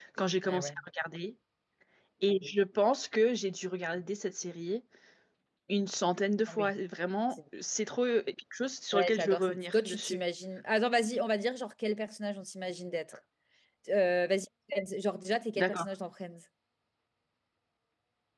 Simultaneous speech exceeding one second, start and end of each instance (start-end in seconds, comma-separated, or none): 8.9-10.2